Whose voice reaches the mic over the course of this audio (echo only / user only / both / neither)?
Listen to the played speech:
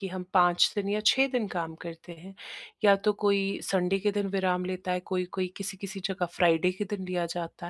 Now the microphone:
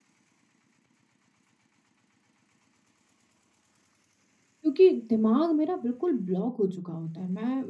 user only